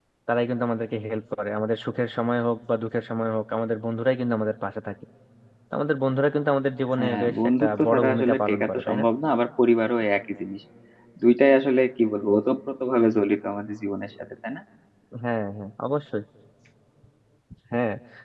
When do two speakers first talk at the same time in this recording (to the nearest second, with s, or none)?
7 s